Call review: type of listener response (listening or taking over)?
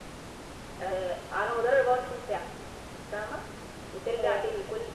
listening